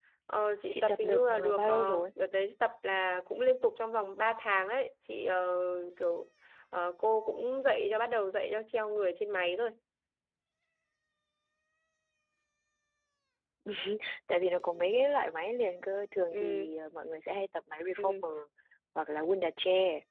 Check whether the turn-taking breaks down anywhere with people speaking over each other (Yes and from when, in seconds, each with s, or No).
Yes, from 0.7 s